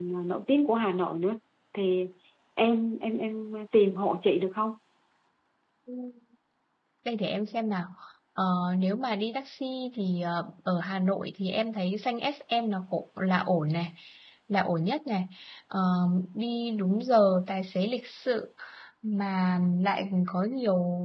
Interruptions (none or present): none